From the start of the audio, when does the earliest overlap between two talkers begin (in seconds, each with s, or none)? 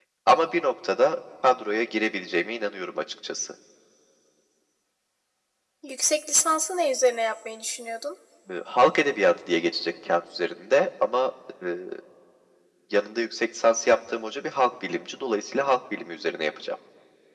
none